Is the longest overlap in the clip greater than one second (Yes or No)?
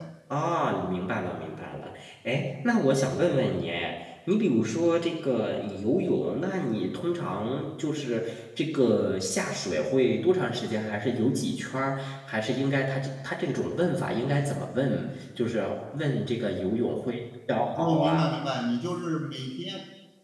No